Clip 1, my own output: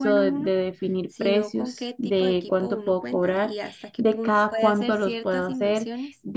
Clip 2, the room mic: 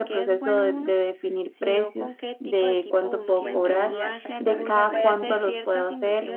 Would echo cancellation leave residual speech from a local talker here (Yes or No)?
Yes